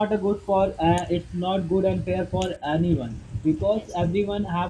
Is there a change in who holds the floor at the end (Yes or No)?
No